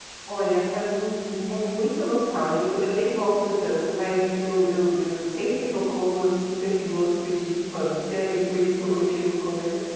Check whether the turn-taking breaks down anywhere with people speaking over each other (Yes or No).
No